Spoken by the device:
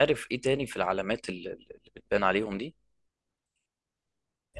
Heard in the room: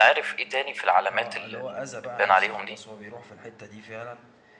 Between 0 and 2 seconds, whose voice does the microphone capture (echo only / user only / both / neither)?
both